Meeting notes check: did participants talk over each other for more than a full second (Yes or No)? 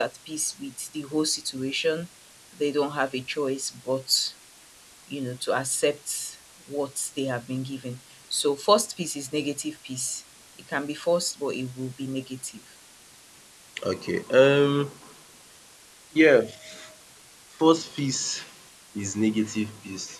No